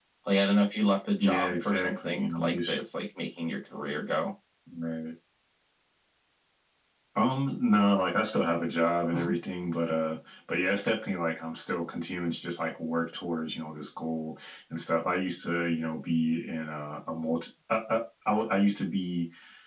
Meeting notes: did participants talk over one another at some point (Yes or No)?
Yes